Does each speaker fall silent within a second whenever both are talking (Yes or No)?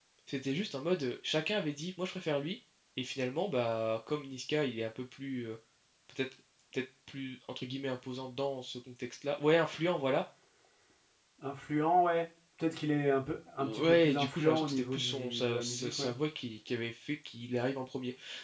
No